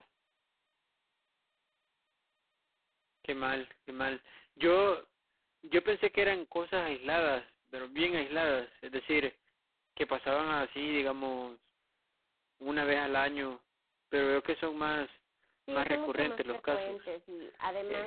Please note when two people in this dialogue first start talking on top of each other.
15.7 s

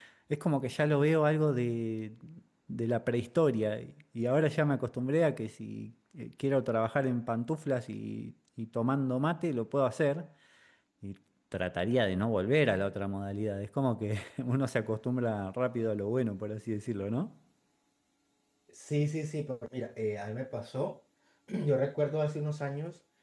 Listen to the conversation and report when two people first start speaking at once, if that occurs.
none

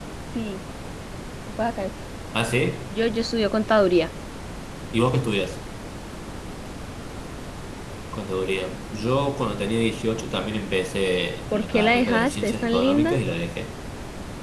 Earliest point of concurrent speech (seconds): 11.5 s

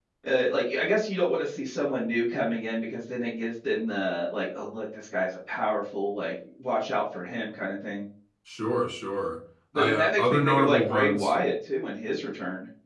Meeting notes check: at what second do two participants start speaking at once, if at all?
9.7 s

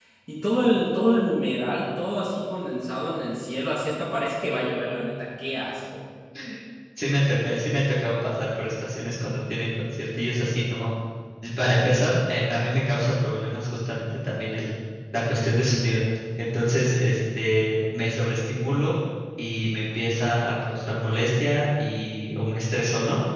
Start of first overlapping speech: none

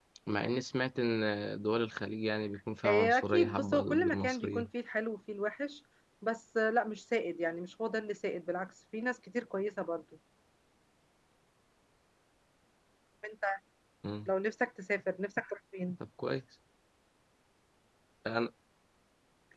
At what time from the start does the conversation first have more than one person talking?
2.8 s

